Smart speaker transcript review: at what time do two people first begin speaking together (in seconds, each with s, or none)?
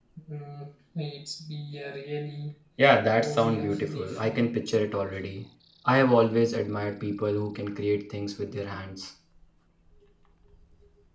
3.2 s